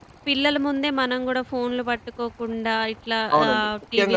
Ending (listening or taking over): taking over